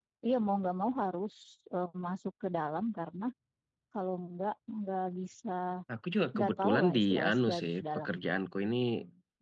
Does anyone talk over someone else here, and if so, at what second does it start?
6.3 s

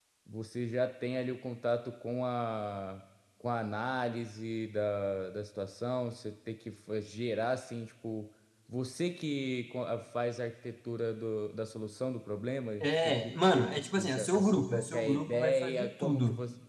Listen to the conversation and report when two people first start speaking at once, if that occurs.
12.8 s

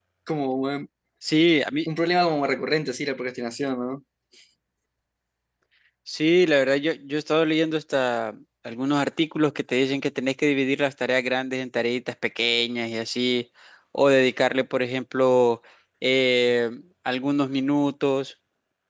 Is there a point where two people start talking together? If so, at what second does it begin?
none

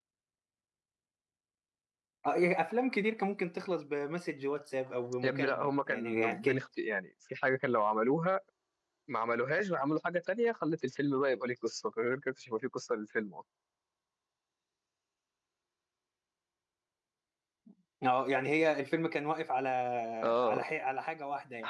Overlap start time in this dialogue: 5.2 s

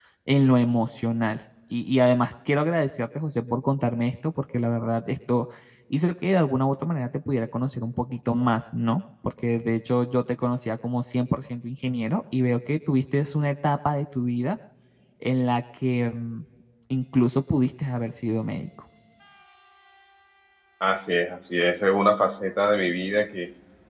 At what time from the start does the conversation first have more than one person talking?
none

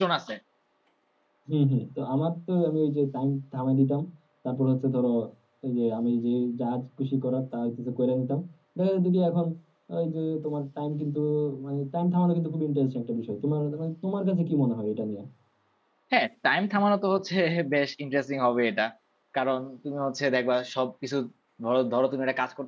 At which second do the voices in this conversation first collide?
none

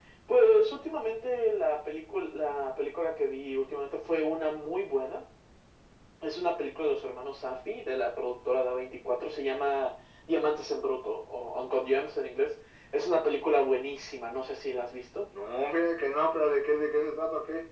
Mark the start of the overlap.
none

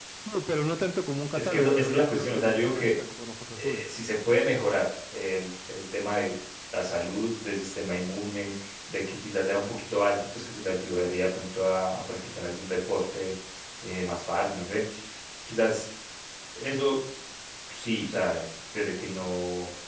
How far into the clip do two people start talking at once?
1.4 s

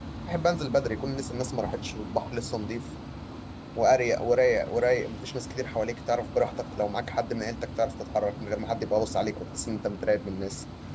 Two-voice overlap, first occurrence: none

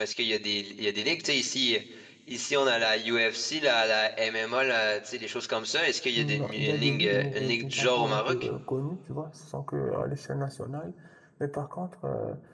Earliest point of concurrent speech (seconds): 6.2 s

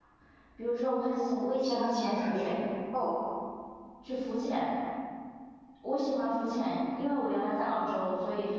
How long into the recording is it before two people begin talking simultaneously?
1.2 s

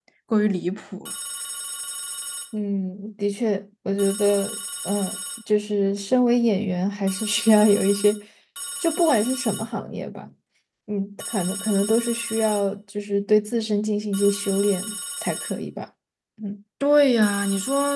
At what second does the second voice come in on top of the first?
none

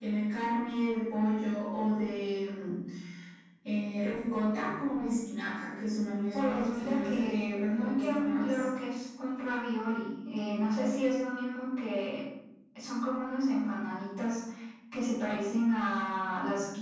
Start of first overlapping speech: 6.3 s

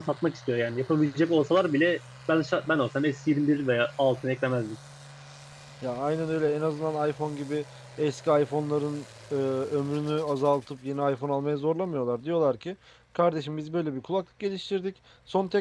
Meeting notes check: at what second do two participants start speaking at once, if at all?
none

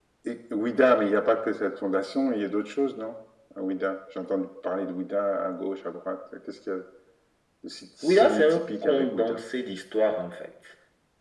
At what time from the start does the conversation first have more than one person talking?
8.0 s

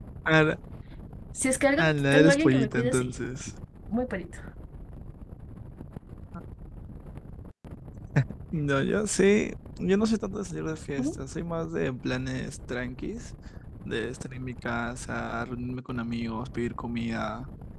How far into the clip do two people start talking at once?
1.8 s

